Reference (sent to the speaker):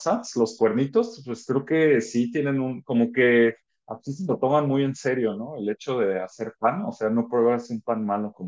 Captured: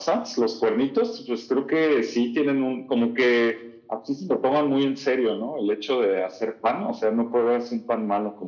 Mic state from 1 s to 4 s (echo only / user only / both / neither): echo only